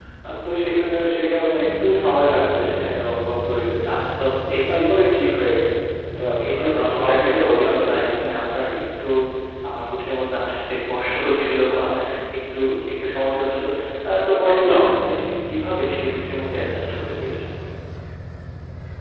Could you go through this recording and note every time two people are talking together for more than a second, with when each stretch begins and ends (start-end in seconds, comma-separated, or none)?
6.6-8.1